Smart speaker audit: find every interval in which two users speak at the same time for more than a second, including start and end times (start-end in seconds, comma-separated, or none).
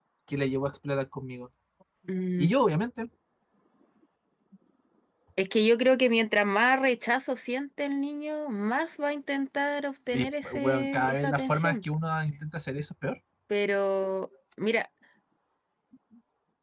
10.1-11.8